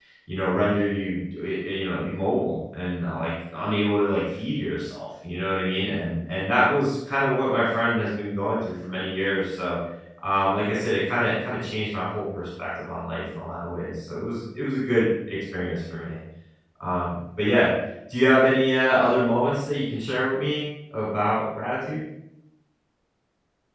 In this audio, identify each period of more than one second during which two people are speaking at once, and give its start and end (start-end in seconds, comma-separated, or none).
none